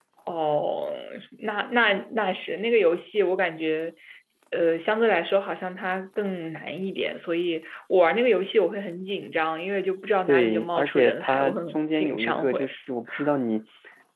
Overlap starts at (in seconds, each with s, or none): 10.3 s